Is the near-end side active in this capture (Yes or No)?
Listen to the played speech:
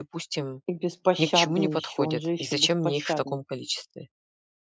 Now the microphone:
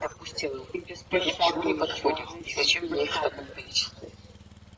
No